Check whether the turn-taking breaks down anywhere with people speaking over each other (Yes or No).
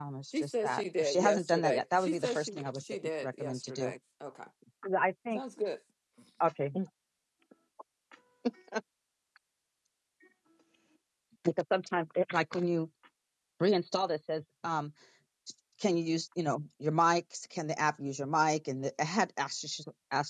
Yes